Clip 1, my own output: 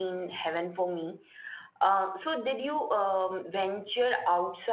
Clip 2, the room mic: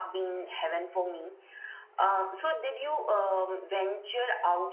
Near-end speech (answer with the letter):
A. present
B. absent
B